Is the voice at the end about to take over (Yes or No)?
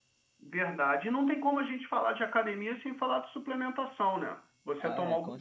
Yes